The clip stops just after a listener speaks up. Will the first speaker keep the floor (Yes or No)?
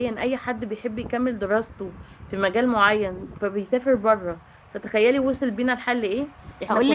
No